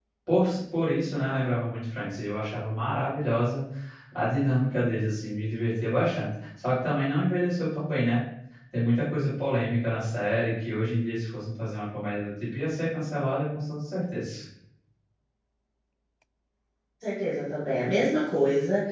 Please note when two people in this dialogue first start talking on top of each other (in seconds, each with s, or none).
none